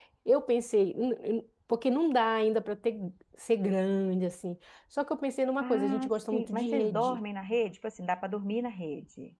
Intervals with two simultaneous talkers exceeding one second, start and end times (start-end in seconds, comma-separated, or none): 5.6-7.2